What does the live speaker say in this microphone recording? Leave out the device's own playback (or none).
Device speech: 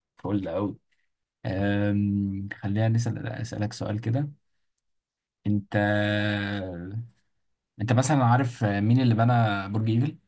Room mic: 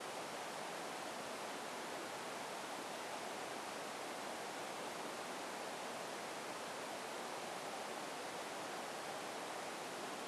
none